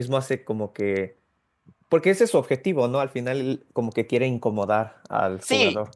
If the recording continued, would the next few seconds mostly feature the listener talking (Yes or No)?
Yes